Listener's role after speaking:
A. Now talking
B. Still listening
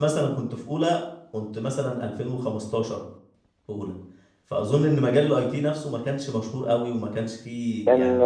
A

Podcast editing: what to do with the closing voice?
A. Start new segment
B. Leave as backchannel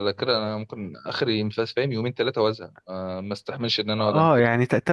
A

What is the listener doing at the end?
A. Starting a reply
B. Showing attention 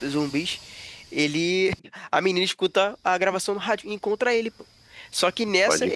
B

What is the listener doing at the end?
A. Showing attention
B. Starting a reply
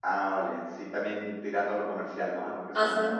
B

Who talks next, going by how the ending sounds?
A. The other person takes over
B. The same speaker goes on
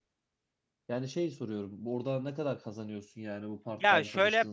A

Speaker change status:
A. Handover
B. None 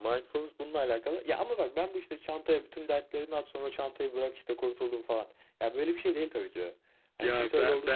A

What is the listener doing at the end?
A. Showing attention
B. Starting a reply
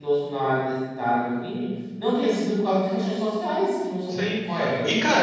B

